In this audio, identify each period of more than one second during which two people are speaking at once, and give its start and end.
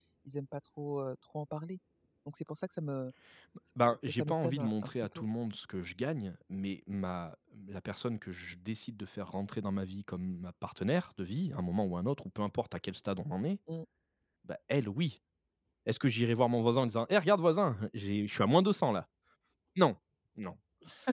3.8-5.2

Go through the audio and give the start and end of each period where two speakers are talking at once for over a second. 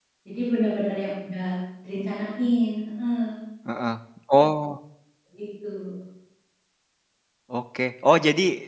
none

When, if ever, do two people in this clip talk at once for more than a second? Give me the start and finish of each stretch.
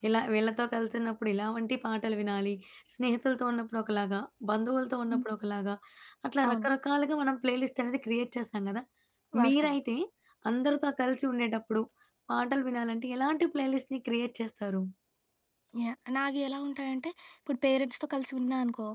none

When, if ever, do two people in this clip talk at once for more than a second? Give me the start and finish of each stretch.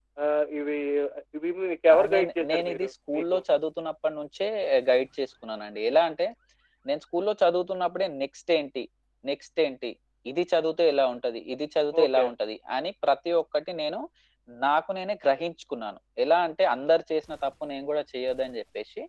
2.1-3.4

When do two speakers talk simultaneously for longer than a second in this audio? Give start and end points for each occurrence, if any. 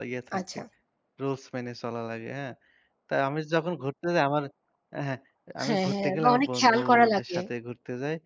5.6-7.4

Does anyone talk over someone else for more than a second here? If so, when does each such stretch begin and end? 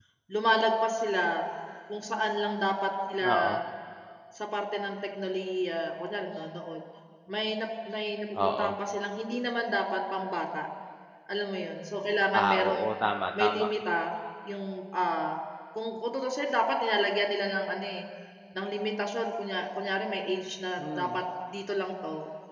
none

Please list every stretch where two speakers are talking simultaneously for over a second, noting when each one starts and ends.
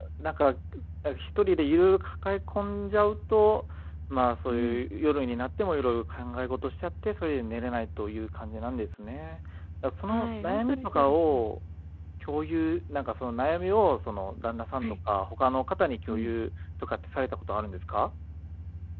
10.1-11.4

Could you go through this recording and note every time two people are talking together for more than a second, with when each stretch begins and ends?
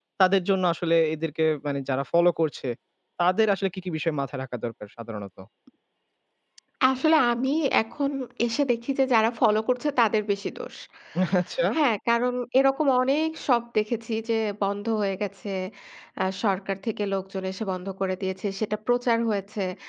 none

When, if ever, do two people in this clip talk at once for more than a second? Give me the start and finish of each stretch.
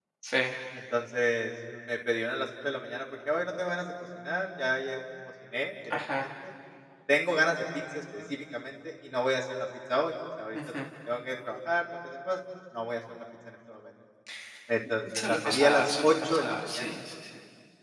15.2-16.9

